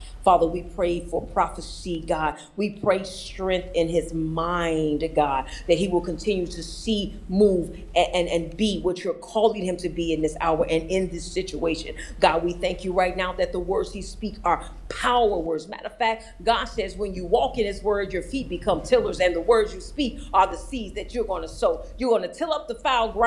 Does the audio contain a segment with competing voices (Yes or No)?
No